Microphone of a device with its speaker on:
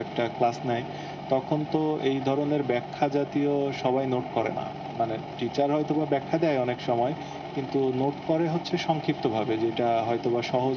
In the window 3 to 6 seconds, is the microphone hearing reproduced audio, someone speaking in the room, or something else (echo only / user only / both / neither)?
echo only